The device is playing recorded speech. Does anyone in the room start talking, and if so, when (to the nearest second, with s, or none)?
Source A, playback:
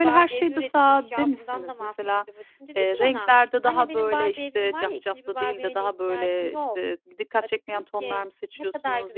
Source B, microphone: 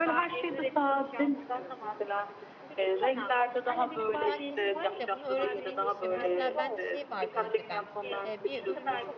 4 s